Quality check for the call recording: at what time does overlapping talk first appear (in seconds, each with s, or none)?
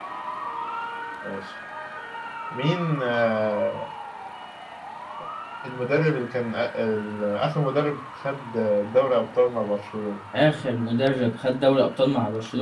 none